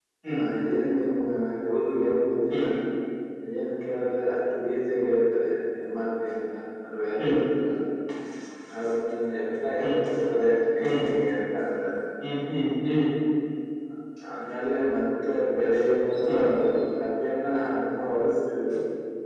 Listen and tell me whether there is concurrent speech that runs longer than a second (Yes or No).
No